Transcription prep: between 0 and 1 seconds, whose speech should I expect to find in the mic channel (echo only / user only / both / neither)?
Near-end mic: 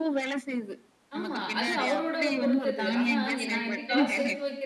echo only